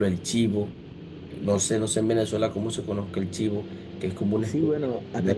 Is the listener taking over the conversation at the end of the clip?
Yes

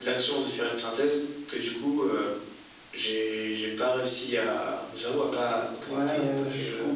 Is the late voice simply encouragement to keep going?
No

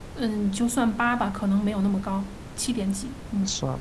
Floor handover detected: Yes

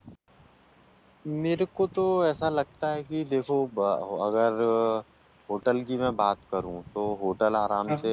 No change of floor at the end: Yes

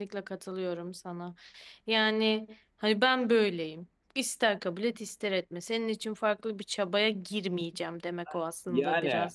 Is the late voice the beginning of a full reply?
Yes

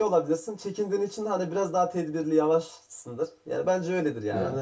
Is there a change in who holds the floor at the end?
Yes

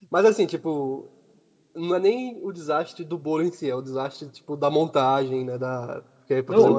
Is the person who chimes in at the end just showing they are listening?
No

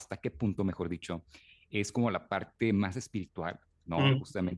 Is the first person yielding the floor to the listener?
No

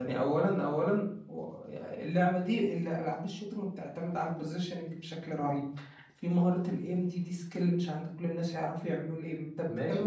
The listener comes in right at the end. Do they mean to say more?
Yes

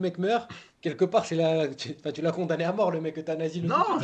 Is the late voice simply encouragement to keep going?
No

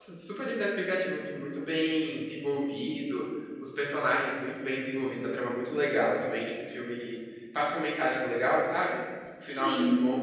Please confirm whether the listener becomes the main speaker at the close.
No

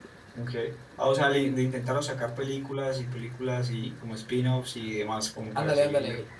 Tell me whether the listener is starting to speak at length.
Yes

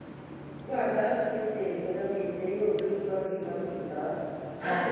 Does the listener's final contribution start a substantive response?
No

